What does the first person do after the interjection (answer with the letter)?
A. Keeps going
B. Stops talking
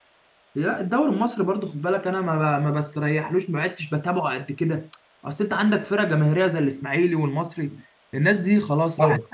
A